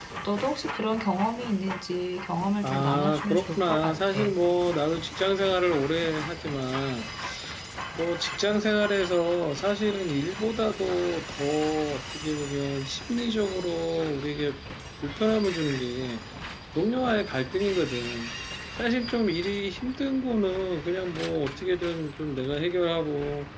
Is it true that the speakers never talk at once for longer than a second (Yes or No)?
No